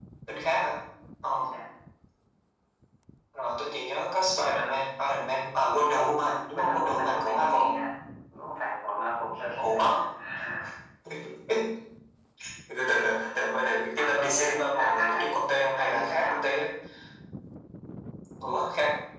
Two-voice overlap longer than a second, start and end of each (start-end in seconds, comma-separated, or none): 5.7-7.6, 14.0-16.6